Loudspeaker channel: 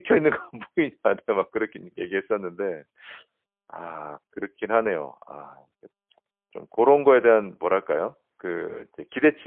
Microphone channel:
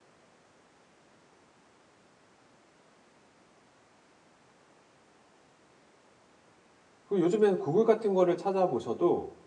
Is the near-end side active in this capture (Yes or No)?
Yes